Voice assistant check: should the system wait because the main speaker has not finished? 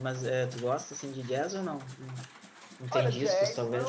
No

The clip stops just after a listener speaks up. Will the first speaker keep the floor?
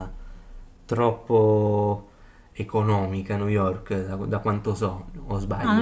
No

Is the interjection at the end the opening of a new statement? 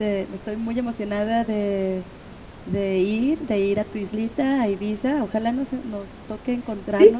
Yes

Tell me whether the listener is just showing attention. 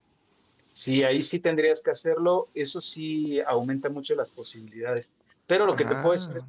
Yes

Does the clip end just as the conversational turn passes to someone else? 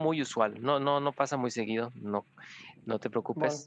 Yes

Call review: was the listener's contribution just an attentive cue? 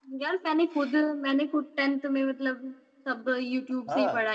No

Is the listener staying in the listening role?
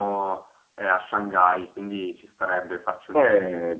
No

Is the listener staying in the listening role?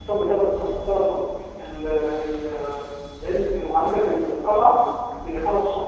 Yes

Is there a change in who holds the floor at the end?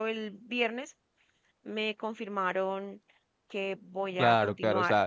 Yes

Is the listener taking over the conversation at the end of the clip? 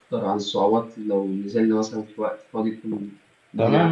Yes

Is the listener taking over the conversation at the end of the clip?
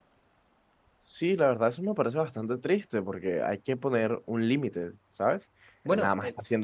No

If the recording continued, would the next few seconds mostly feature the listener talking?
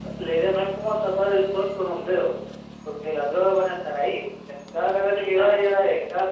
No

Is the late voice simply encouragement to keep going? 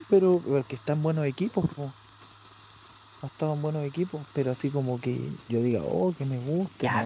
No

